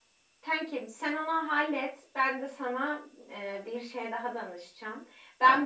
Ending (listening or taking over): listening